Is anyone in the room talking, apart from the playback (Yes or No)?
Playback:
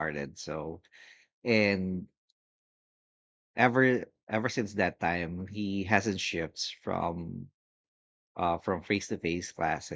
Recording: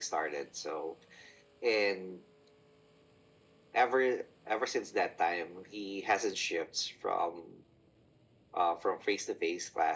No